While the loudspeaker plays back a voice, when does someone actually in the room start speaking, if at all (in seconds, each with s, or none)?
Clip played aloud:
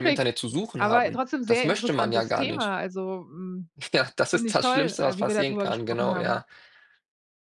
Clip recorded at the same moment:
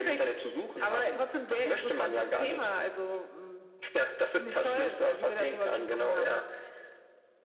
none